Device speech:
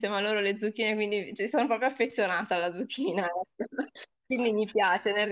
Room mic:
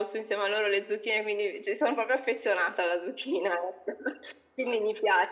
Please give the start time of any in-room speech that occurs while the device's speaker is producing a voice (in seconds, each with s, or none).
none